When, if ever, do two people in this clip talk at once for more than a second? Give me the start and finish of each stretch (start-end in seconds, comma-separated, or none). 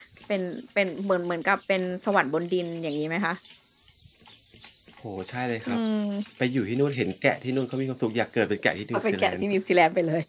none